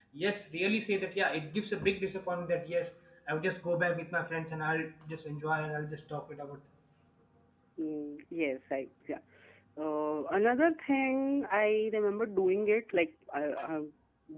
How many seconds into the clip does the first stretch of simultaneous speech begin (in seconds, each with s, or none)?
none